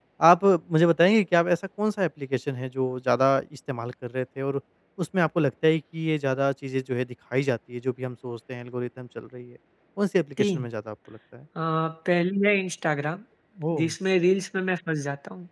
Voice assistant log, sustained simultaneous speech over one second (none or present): none